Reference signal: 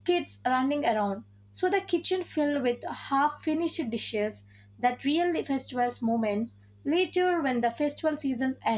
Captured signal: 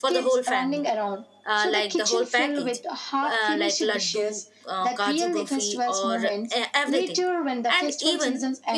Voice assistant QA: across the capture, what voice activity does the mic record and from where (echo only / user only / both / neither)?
both